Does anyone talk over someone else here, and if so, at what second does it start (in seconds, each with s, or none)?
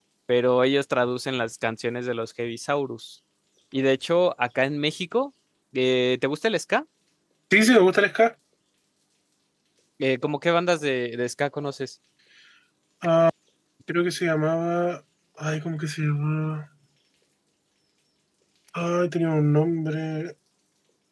none